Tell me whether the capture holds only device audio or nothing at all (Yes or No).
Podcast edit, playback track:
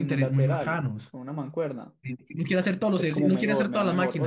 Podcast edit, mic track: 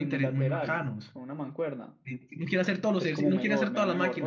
Yes